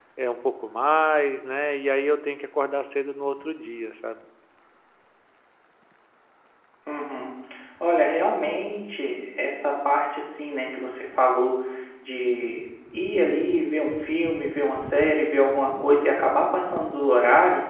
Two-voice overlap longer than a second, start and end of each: none

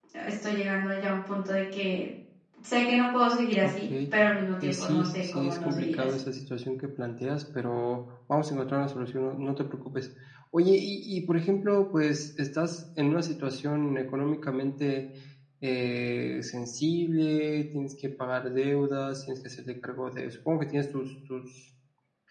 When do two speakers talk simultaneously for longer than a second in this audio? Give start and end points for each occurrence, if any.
4.6-6.2

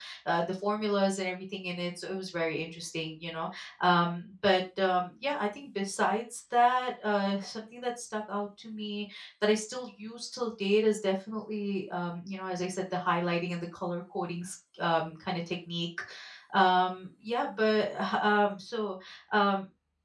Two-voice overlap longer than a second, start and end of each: none

